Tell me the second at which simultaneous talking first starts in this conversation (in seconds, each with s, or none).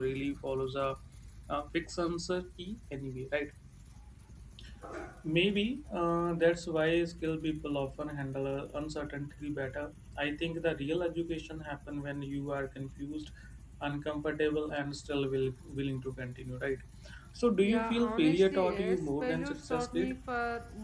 17.6 s